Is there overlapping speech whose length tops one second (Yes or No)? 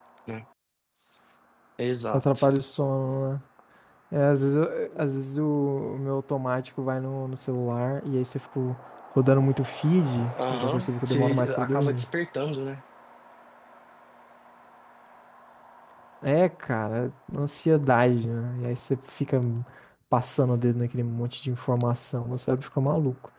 Yes